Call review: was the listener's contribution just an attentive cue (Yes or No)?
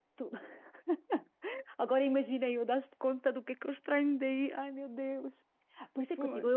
Yes